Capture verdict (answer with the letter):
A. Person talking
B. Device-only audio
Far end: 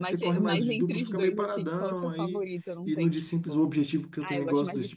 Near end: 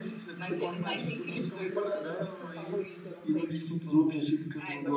B